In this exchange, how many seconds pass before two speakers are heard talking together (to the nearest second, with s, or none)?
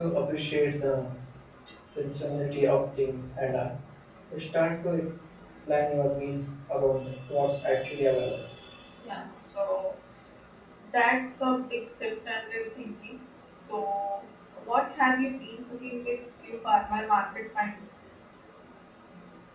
none